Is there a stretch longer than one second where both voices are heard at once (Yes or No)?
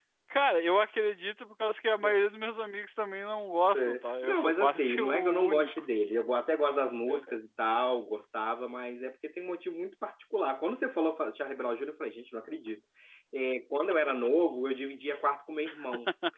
Yes